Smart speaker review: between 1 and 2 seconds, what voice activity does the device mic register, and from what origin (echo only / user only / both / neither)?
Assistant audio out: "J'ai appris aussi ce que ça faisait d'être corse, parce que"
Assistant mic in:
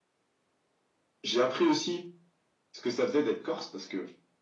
echo only